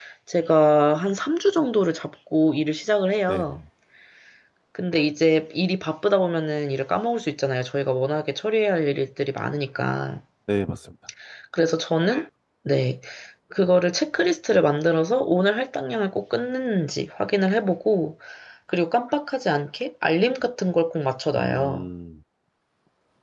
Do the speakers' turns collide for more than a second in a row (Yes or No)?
No